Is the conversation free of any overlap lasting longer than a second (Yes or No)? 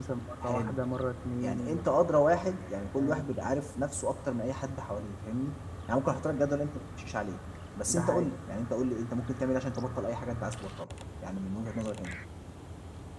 Yes